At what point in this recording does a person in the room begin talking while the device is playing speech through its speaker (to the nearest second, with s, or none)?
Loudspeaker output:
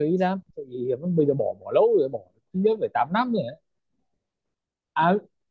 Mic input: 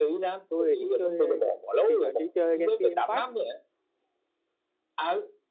0 s